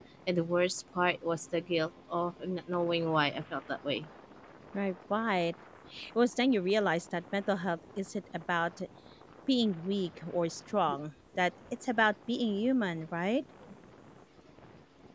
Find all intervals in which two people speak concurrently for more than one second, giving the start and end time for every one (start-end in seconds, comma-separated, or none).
none